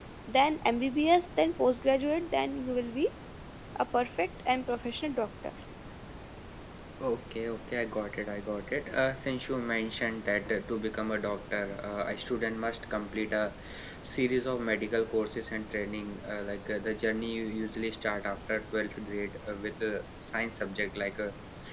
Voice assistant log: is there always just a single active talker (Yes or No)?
Yes